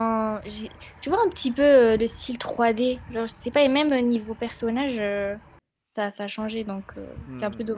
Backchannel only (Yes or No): No